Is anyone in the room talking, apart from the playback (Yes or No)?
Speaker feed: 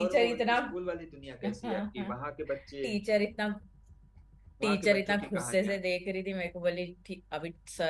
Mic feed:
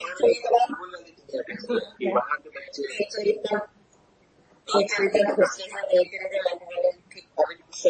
No